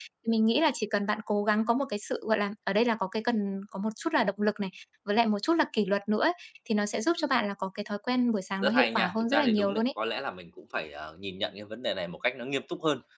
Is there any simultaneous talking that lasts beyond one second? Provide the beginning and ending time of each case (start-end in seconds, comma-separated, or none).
8.6-9.8